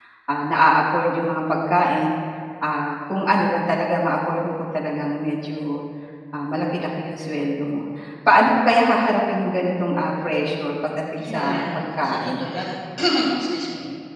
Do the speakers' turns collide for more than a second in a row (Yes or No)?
Yes